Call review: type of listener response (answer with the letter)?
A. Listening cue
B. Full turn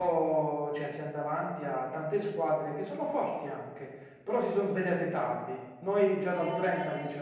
B